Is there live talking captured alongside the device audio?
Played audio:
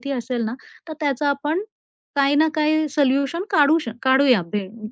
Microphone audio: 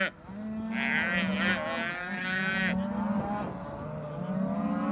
No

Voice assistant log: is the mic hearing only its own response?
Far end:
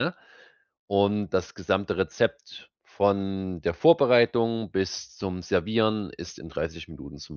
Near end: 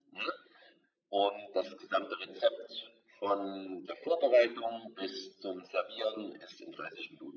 Yes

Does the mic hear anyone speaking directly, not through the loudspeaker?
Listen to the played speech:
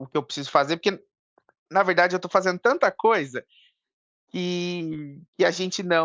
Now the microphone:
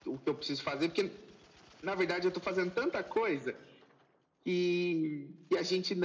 No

